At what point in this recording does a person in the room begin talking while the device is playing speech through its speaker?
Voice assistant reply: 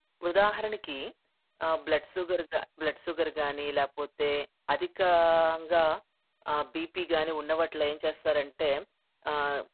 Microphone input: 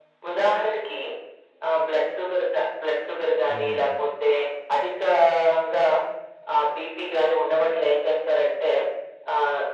3.5 s

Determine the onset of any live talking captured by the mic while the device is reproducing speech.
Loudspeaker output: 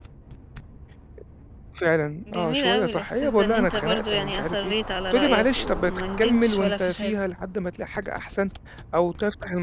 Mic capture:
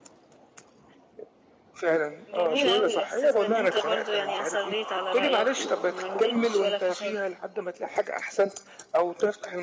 none

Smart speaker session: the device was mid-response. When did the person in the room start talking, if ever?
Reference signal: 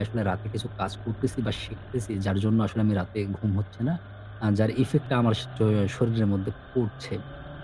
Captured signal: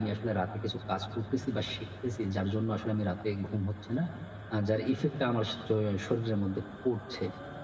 none

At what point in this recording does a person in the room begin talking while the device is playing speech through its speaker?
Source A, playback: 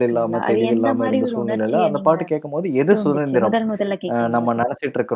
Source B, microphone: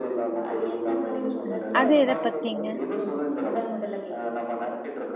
1.5 s

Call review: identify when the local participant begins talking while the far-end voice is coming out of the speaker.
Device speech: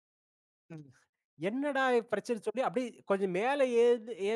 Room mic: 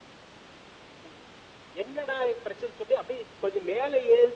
none

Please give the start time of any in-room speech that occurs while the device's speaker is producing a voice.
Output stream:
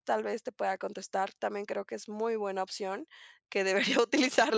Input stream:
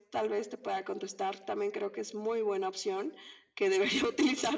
none

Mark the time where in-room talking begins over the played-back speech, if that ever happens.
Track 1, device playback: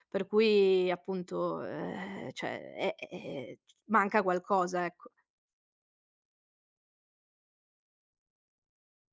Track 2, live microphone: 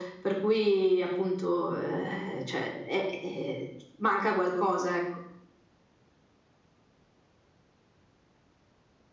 none

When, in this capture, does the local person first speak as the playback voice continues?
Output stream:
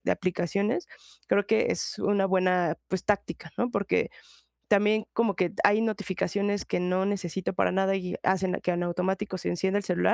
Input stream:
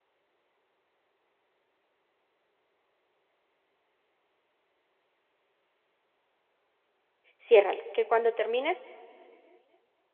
7.4 s

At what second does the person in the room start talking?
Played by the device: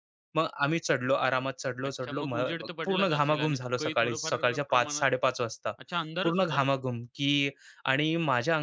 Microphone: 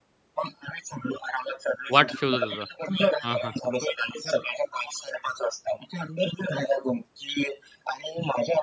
1.9 s

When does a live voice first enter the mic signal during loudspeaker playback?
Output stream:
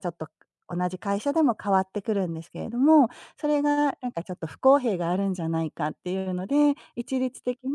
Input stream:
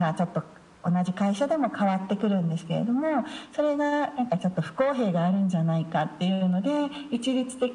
none

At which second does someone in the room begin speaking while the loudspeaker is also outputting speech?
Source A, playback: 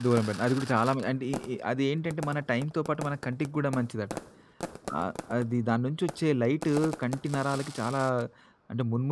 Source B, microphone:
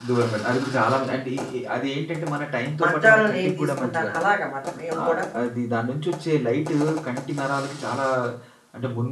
2.8 s

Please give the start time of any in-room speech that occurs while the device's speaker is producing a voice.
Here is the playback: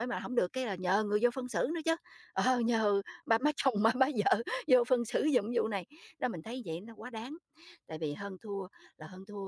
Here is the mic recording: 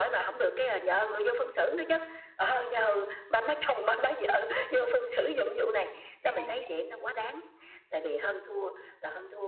6.2 s

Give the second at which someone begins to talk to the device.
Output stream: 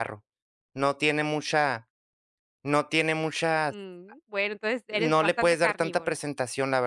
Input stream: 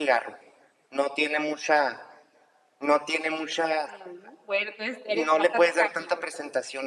none

